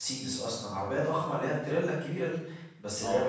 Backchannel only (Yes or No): Yes